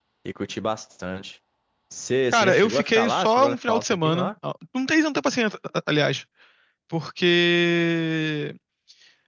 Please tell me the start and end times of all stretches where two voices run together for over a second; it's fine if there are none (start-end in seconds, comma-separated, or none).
2.3-4.3